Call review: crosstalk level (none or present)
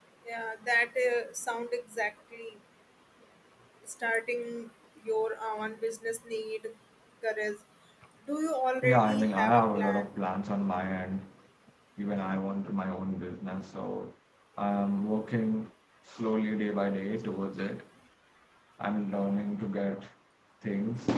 present